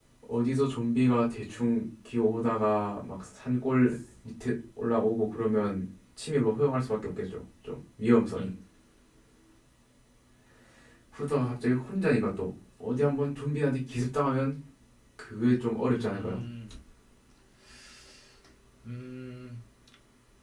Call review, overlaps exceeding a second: none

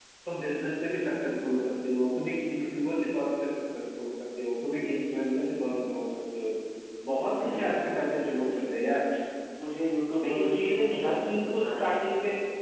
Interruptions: present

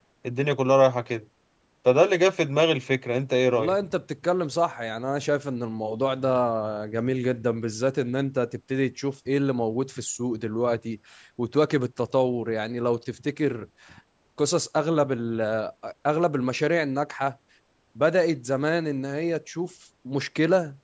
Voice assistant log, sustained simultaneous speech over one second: none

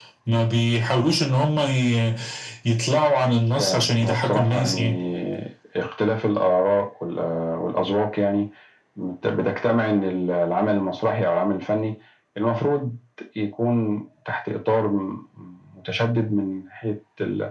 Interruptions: present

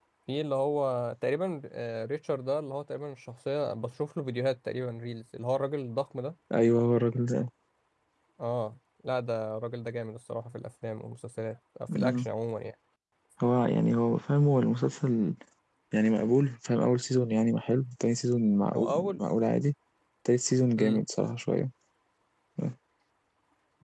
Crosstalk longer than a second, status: none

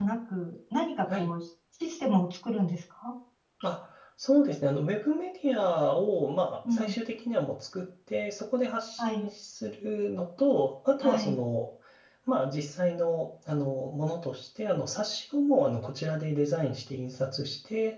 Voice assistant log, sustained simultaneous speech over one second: none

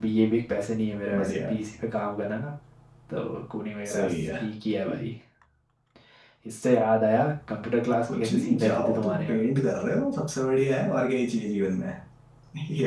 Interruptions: present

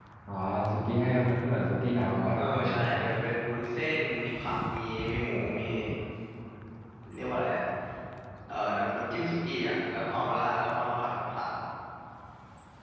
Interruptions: none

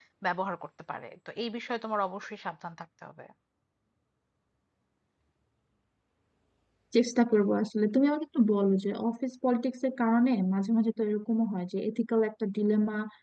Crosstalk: none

